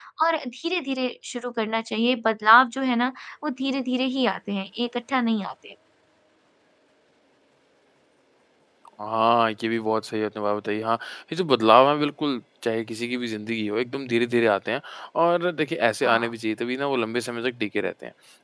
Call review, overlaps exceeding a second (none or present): none